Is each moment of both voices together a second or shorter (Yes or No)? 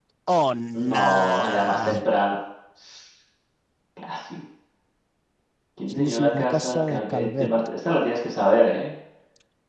No